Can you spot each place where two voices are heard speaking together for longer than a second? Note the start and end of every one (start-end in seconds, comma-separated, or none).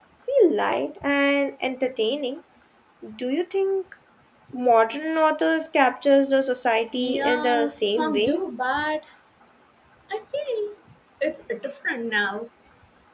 7.0-8.4